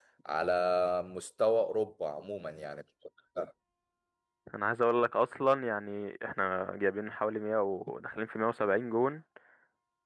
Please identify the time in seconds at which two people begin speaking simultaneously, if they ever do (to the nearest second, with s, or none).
none